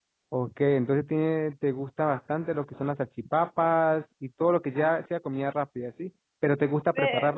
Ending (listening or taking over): listening